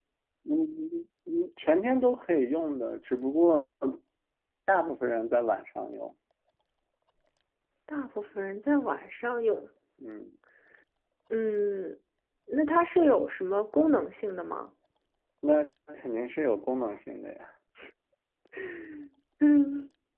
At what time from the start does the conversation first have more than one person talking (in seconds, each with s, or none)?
none